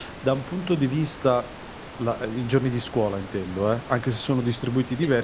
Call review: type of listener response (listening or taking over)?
listening